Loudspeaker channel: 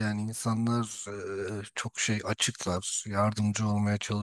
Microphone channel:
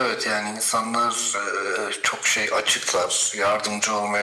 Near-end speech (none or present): none